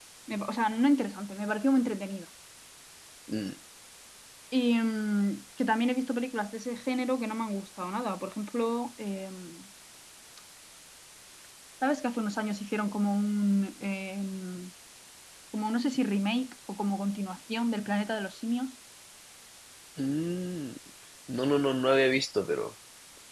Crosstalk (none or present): none